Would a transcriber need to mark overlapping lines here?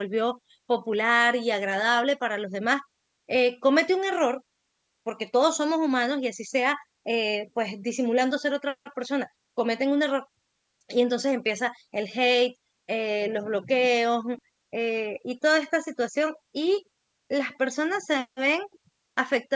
No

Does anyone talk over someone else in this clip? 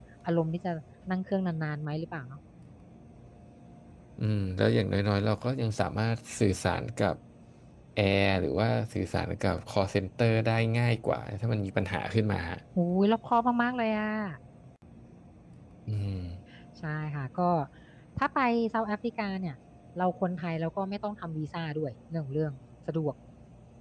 No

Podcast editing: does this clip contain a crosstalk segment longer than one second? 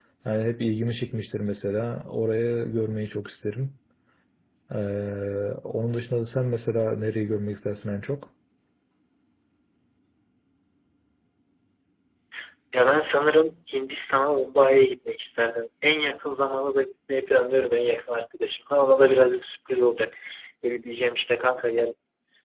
No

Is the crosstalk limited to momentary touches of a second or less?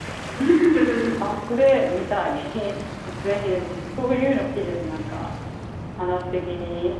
Yes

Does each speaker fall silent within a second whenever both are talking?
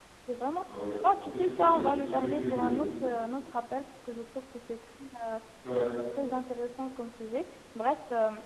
No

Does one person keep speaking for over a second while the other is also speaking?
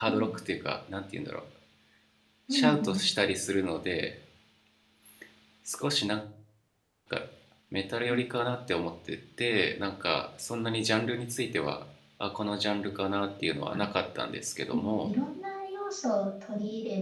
No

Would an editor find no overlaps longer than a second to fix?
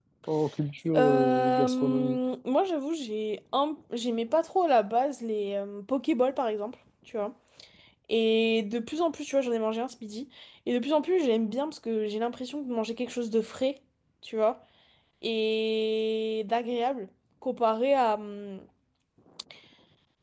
No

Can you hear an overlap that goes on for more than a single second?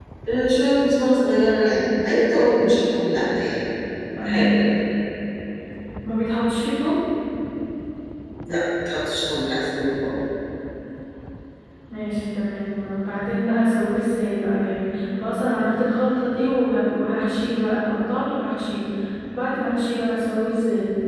No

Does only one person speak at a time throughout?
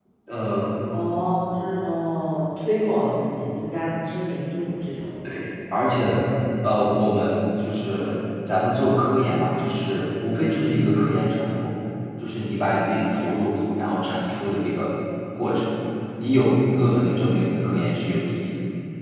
Yes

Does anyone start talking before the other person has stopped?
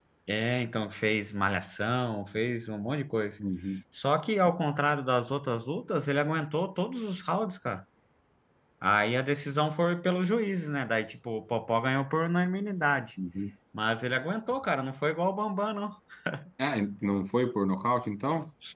No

